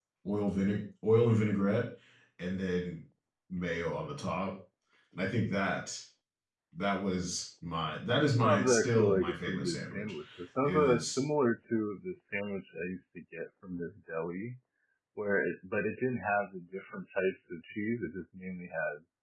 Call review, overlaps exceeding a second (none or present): present